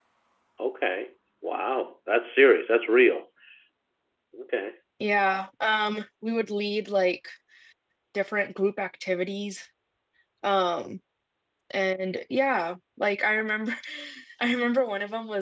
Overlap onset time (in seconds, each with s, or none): none